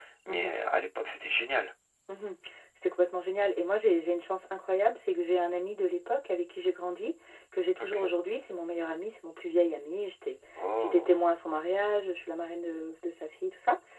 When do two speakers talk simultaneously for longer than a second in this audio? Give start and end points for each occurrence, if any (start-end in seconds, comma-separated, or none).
none